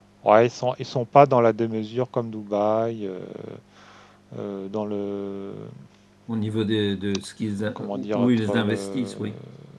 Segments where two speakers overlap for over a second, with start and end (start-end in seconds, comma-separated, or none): 7.8-9.1